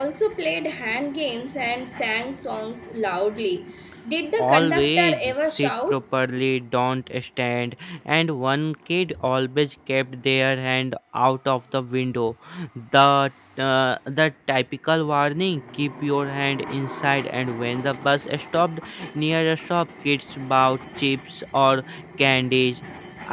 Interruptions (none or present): present